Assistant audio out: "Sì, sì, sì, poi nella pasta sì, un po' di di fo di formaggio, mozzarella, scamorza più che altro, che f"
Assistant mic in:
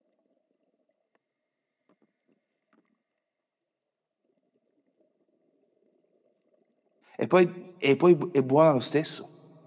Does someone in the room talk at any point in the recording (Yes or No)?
Yes